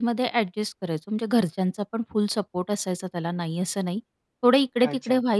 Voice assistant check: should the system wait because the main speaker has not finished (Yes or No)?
Yes